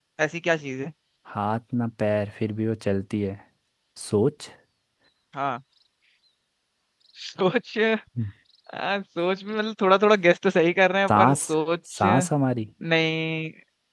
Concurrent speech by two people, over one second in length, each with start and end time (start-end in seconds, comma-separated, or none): none